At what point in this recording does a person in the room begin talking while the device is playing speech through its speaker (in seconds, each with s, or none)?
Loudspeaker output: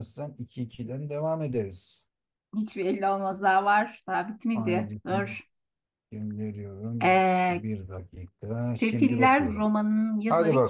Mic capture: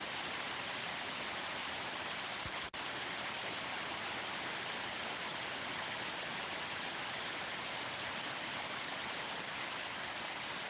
none